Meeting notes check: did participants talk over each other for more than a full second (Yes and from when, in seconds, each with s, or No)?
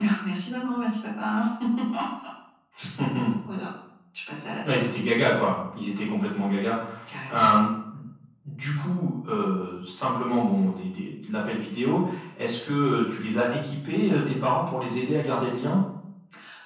No